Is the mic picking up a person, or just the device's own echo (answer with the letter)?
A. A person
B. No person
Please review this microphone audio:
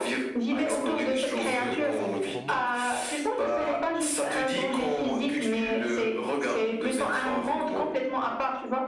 A